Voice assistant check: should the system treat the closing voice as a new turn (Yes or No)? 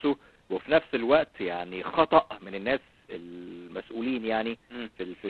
No